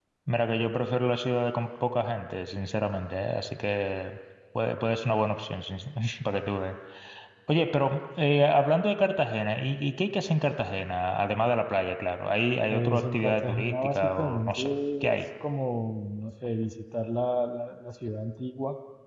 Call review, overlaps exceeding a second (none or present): present